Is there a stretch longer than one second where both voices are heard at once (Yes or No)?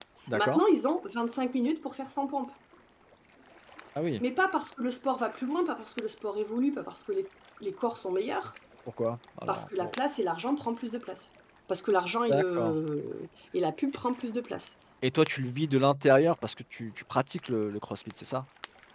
No